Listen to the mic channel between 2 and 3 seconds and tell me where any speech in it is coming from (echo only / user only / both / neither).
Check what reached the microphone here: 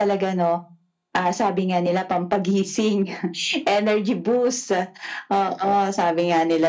echo only